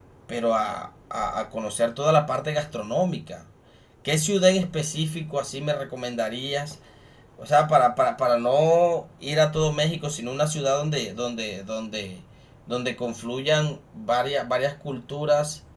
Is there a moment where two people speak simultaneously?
No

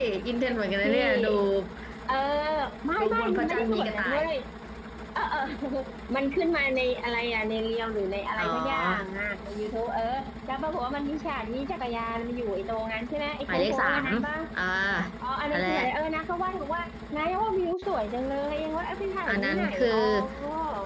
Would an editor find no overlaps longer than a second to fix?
No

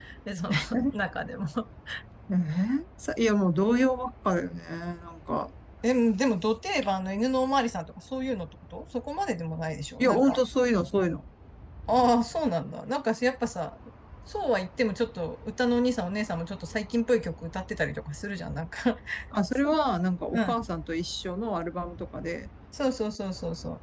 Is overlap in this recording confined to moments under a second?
Yes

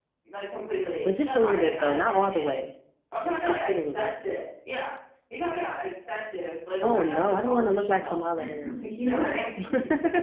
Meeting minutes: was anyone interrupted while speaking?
Yes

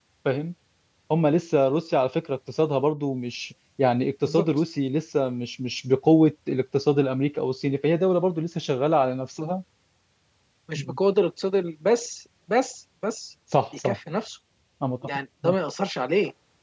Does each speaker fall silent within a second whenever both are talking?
Yes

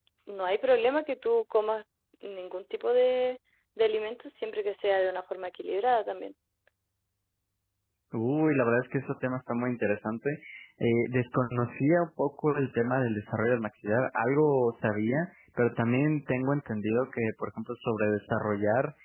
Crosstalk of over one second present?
No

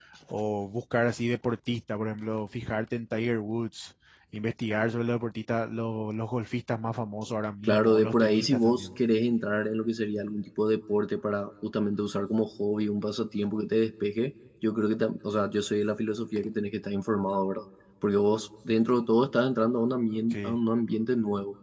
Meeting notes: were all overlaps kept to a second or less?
No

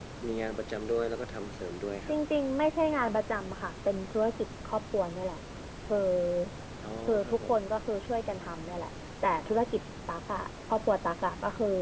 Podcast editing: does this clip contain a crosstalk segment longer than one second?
No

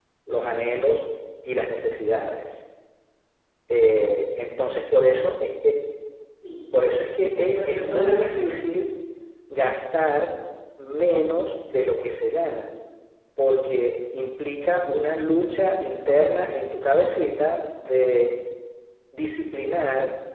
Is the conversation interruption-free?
No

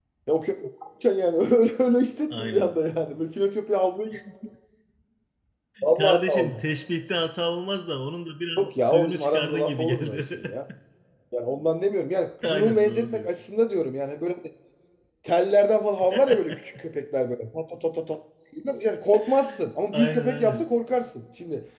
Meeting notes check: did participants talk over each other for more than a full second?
Yes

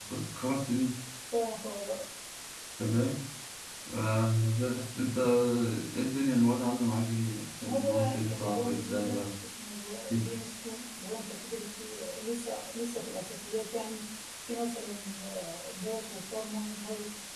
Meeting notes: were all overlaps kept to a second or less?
No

